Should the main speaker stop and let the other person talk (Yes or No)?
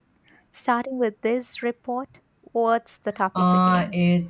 Yes